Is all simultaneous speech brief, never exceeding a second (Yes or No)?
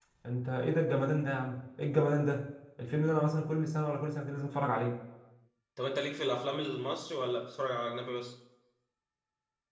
Yes